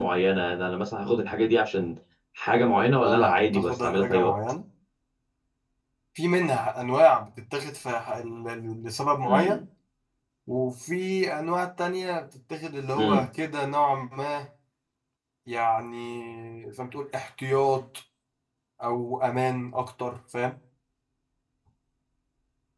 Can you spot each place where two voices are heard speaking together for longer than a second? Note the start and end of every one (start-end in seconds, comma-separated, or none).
3.0-4.3